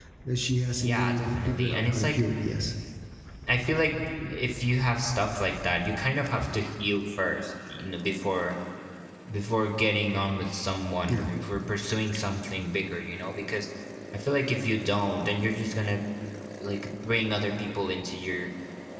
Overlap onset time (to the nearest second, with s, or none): 1 s